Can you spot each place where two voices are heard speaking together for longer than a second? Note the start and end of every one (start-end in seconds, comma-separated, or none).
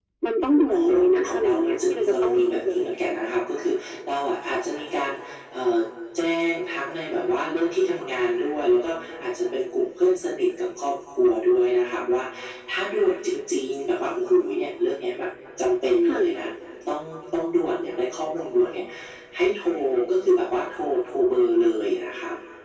1.3-2.8